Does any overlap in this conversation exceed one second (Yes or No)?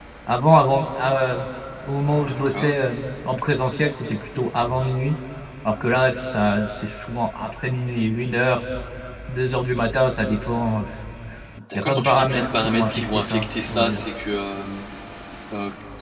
Yes